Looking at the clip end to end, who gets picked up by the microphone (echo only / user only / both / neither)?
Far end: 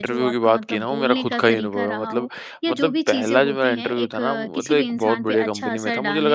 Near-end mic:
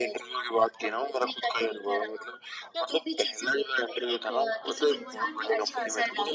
both